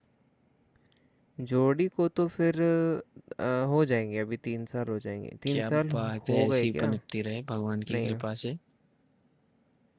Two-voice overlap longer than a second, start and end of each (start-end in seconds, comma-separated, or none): 5.5-7.0